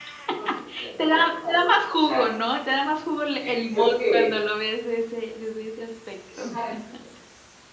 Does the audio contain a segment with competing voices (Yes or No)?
Yes